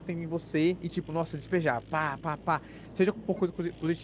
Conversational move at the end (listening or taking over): listening